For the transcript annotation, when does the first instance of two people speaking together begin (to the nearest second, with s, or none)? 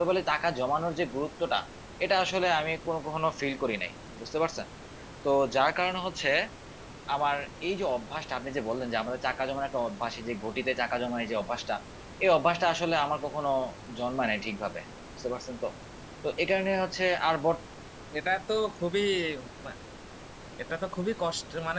none